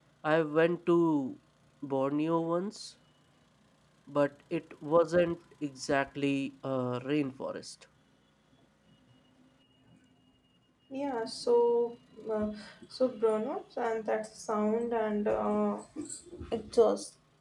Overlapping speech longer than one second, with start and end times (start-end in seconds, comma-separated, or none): none